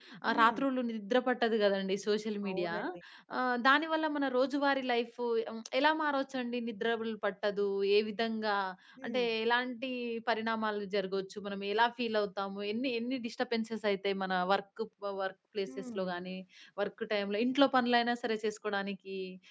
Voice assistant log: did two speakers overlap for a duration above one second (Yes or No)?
No